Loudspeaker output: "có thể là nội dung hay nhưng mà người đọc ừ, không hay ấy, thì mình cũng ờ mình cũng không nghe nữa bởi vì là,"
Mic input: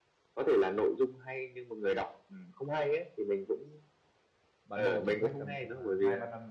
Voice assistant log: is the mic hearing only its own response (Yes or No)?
No